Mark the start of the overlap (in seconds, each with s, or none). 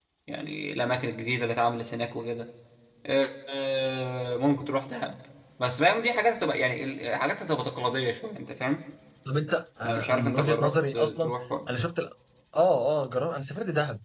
9.8 s